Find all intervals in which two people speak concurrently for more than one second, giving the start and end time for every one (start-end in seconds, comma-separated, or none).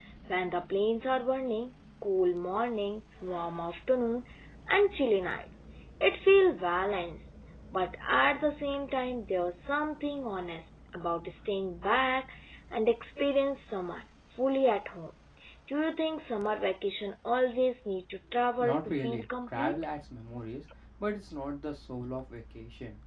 18.6-19.8